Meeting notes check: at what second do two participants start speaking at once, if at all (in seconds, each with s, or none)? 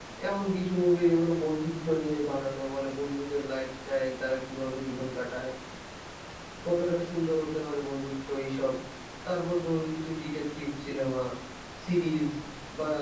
none